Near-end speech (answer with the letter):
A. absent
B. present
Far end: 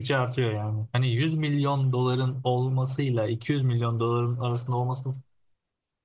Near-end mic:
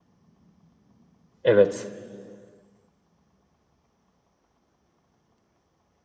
B